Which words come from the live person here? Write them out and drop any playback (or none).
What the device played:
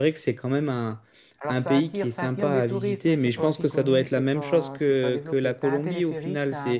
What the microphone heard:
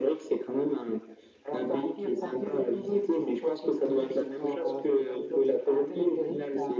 none